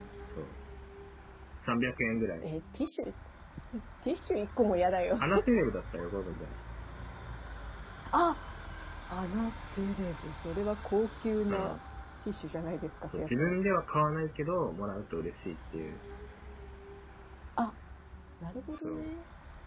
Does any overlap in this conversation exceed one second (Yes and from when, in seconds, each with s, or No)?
No